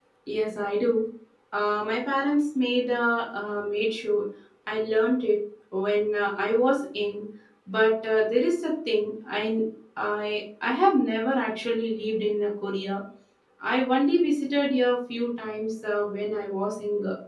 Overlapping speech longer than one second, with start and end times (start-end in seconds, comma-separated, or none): none